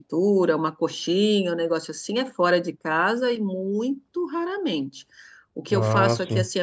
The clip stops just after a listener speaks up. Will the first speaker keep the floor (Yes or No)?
Yes